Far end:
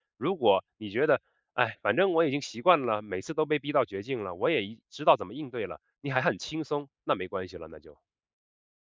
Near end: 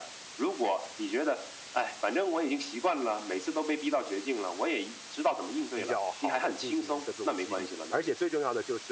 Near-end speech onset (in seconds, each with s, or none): 5.7 s